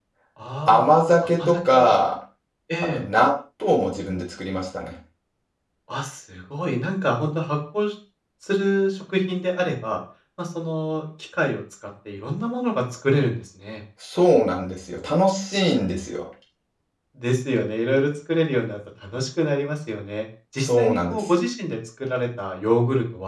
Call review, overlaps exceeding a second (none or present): present